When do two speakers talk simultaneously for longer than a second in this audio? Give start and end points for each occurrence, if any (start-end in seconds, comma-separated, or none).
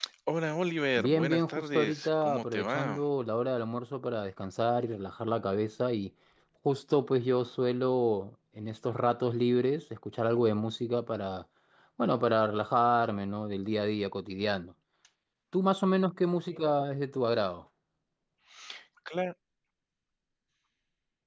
1.0-3.0